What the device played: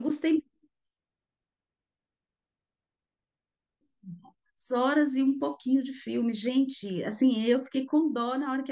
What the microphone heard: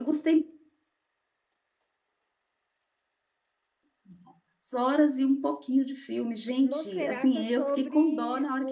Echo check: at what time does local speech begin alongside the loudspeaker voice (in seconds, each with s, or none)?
6.6 s